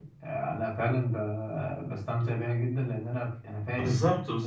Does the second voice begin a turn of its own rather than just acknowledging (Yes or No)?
Yes